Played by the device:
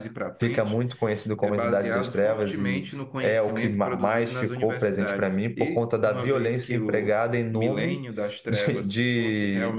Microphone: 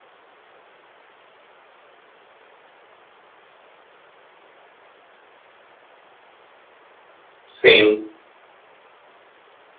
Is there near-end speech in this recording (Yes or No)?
Yes